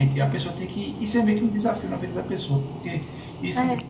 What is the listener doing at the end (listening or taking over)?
listening